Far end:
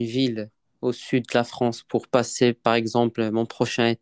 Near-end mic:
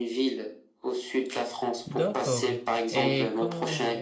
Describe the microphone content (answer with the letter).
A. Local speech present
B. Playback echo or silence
A